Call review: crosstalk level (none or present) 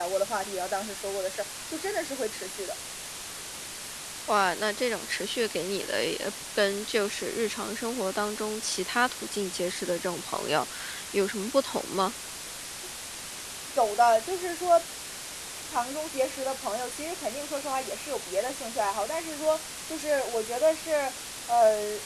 none